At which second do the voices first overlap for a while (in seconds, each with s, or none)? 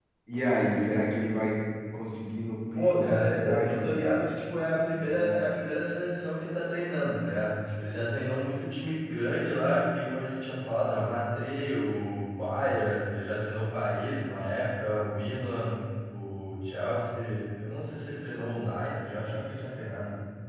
2.7 s